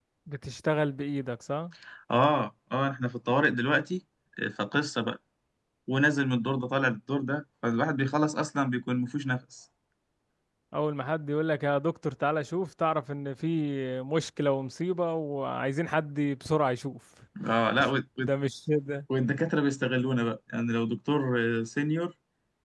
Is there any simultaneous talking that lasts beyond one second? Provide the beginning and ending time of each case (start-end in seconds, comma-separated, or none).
none